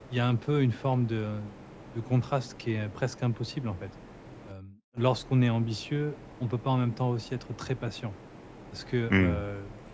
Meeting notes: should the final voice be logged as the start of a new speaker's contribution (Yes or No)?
No